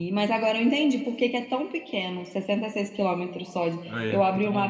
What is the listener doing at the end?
listening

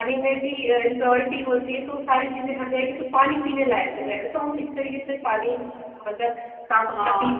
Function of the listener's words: taking over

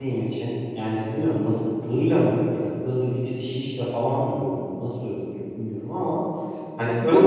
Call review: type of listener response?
taking over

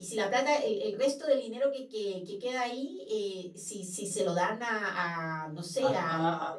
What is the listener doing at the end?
taking over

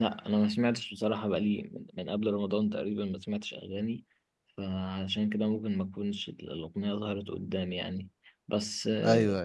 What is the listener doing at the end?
listening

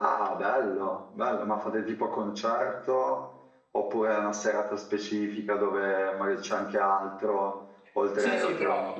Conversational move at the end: taking over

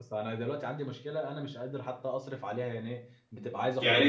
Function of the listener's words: listening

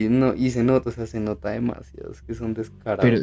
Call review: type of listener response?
taking over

